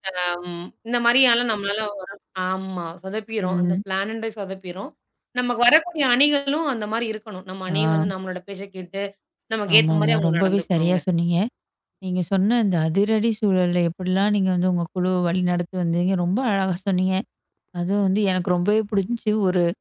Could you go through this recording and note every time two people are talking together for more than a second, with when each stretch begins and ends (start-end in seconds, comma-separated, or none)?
9.7-11.0